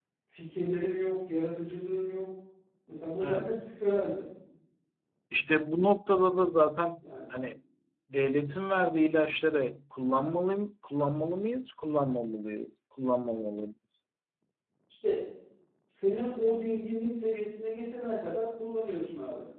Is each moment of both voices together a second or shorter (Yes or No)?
Yes